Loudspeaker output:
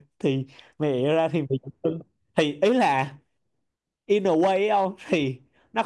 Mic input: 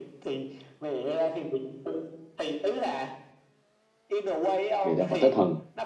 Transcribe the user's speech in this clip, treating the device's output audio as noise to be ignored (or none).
bị là vật tới thần